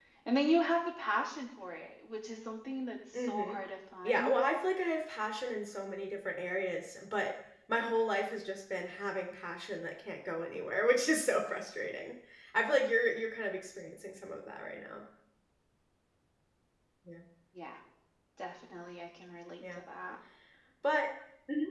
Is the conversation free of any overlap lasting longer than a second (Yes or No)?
Yes